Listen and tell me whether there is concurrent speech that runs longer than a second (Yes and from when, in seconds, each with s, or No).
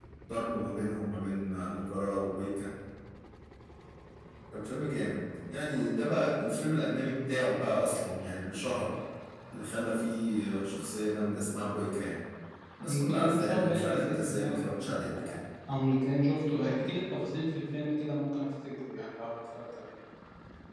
Yes, from 12.9 s